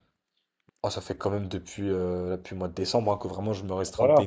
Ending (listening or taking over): taking over